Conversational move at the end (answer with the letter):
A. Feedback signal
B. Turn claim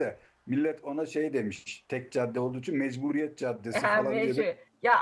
B